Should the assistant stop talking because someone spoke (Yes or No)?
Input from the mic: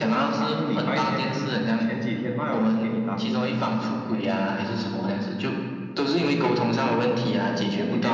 No